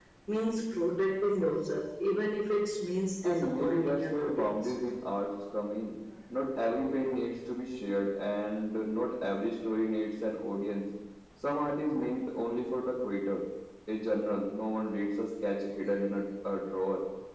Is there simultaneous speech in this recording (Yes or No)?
Yes